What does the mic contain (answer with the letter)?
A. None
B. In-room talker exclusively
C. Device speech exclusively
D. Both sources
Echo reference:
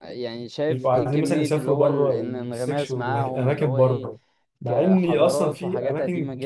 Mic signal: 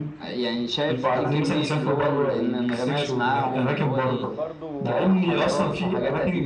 D